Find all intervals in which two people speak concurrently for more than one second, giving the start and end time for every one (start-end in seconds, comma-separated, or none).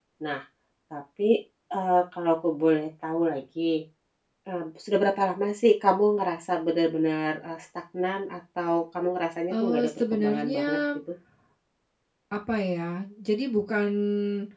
9.5-10.8